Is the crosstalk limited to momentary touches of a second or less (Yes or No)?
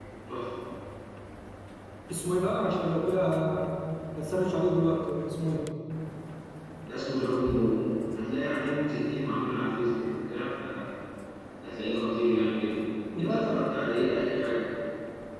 Yes